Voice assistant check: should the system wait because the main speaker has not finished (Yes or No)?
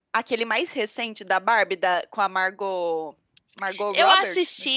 No